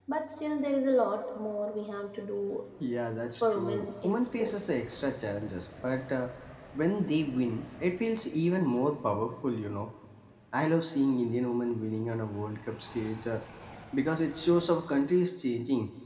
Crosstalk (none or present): present